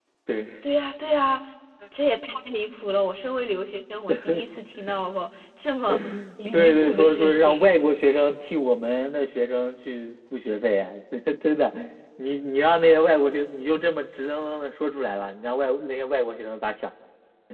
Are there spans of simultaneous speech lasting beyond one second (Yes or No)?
Yes